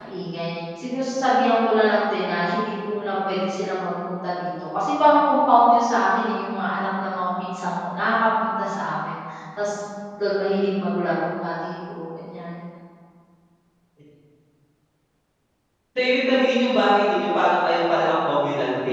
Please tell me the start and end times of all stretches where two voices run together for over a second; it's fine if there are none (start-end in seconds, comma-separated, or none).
none